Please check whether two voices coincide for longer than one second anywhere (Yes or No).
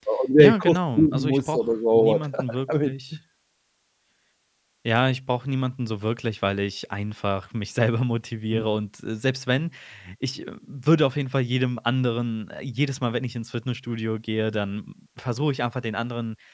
Yes